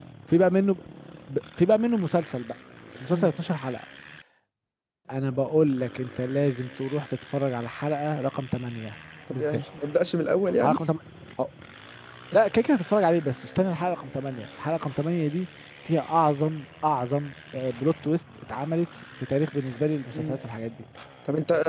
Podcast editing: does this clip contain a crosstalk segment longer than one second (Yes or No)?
No